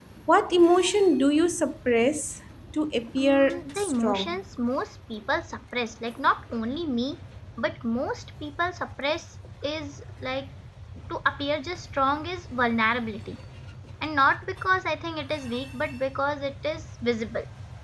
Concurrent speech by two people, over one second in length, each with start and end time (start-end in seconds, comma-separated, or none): 3.2-4.4